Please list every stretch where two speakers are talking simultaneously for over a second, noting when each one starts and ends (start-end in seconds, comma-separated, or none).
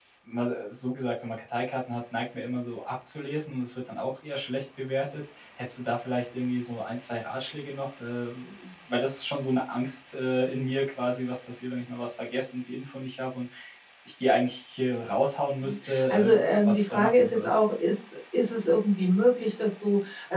15.6-17.5